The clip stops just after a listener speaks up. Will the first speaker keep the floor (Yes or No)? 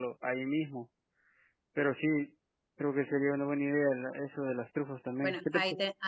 No